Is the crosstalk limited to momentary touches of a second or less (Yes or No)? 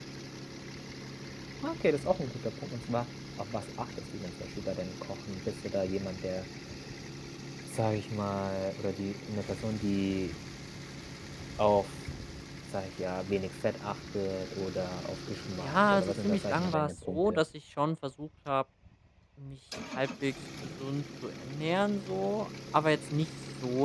No